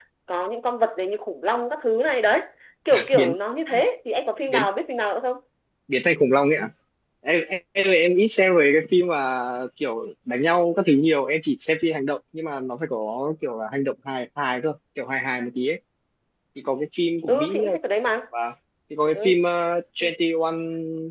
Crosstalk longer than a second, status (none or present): none